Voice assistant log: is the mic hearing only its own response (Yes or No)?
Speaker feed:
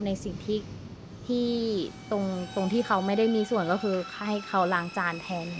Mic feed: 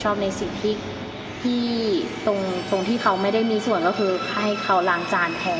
Yes